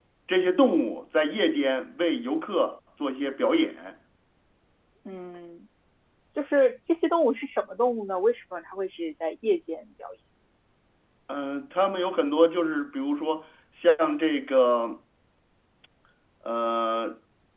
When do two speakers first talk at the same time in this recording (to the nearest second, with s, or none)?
none